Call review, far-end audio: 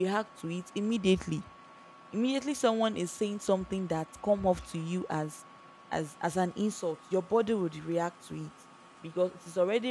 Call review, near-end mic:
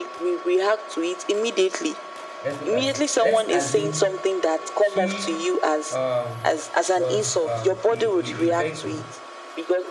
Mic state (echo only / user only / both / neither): both